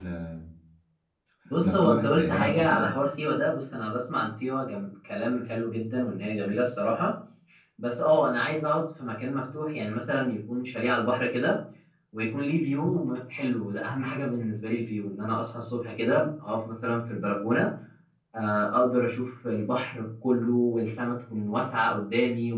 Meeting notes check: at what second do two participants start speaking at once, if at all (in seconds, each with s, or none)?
1.6 s